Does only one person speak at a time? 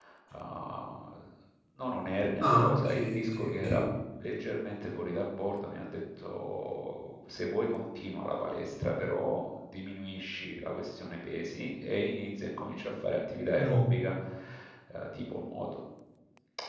No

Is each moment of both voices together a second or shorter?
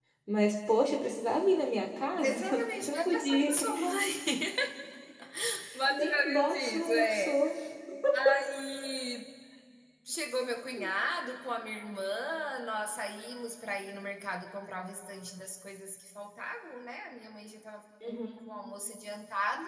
No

